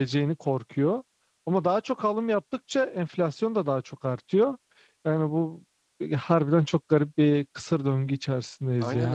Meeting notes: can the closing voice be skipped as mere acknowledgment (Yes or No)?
No